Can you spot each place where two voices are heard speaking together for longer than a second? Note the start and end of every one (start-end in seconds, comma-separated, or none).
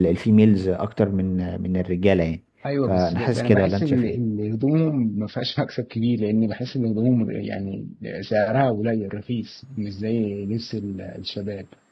2.9-4.2